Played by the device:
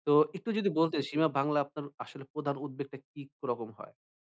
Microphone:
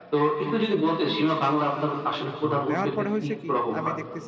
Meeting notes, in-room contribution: present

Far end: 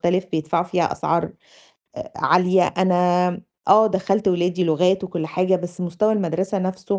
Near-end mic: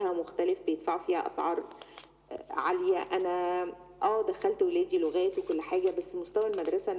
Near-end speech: none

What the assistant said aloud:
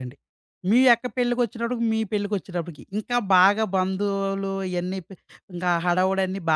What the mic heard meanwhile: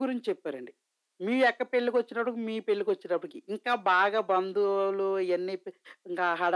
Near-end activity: none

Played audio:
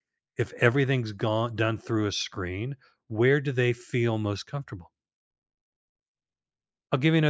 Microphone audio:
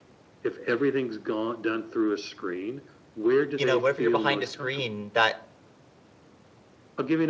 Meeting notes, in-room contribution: present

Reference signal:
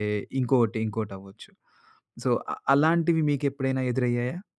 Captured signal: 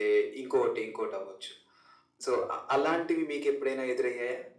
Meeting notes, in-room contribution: none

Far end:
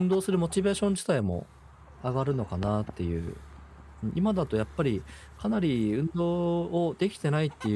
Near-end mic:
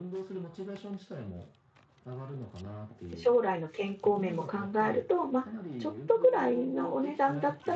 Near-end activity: present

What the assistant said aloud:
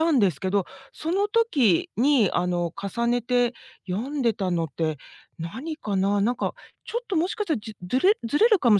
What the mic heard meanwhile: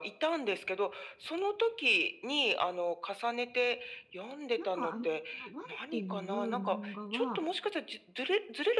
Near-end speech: present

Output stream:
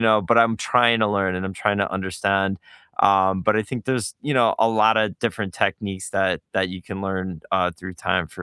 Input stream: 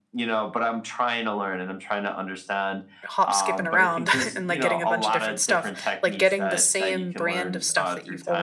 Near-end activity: present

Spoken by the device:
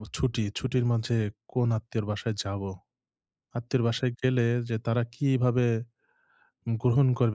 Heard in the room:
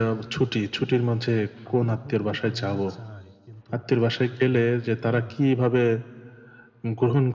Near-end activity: present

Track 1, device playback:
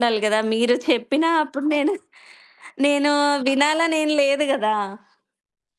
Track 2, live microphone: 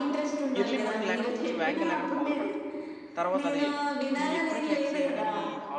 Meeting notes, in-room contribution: present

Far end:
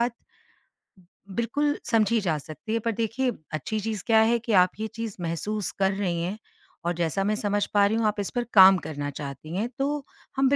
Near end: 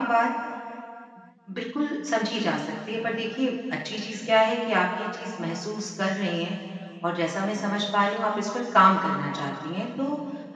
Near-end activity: none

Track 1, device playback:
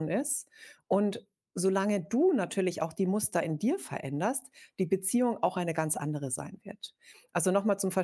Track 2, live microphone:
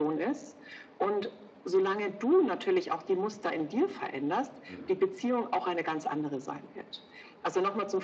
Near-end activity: present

